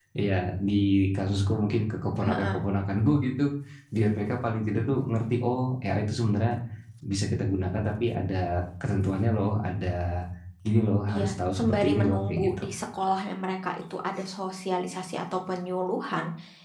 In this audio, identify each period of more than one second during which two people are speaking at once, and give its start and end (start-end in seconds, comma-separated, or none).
11.1-12.6